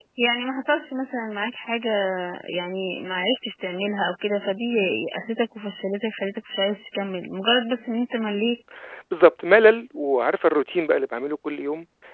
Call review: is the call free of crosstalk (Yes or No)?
Yes